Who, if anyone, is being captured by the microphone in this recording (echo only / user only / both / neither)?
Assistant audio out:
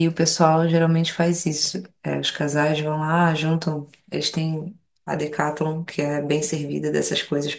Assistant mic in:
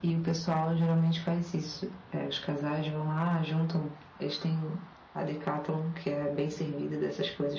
echo only